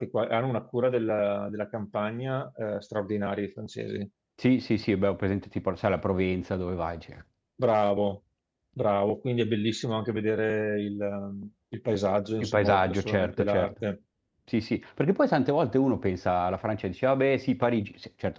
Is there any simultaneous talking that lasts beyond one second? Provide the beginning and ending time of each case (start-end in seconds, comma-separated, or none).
12.4-13.7